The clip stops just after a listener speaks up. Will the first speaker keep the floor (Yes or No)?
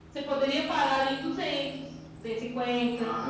No